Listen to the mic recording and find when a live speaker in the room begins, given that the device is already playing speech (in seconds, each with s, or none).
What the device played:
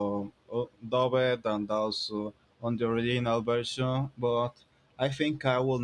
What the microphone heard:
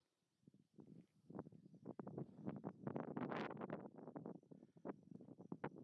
none